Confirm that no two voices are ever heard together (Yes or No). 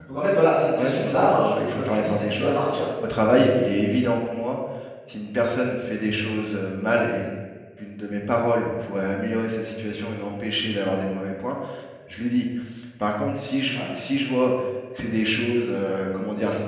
No